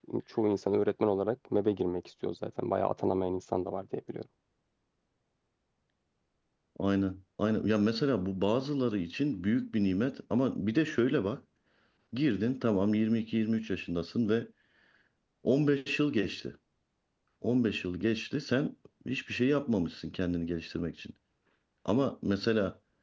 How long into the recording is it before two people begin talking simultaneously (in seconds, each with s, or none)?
none